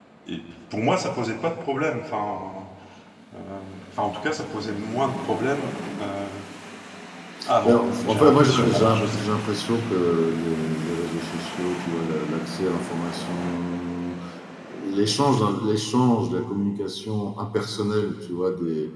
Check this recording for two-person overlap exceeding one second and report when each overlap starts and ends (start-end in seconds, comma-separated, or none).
7.6-9.2